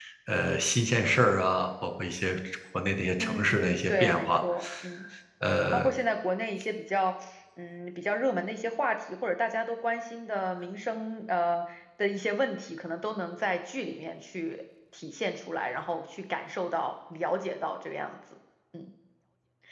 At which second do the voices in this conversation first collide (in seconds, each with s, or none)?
3.2 s